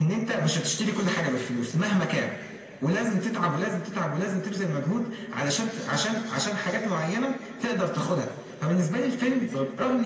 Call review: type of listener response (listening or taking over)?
listening